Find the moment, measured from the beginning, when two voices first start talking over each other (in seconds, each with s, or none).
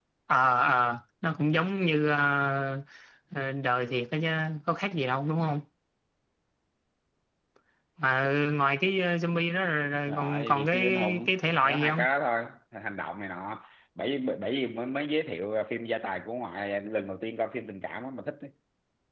10.1 s